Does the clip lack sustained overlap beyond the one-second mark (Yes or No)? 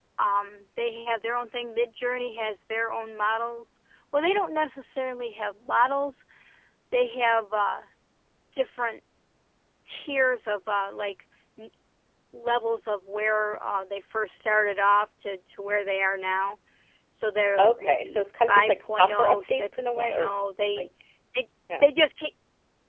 No